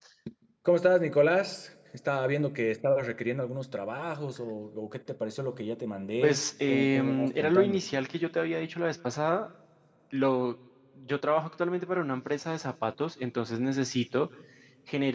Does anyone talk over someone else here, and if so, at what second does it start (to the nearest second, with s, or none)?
6 s